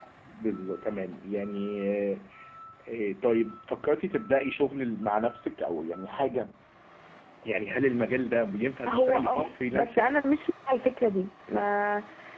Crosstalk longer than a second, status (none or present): present